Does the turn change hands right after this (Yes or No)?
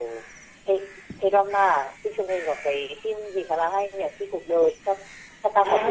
Yes